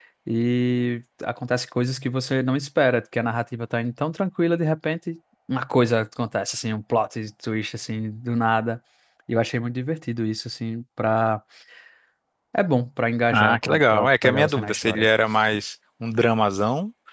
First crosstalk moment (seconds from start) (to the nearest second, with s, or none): 13 s